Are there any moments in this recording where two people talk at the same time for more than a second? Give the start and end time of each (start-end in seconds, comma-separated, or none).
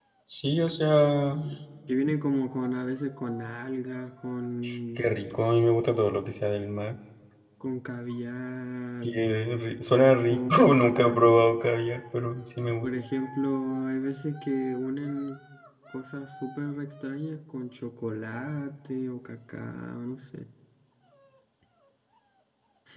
10.3-11.5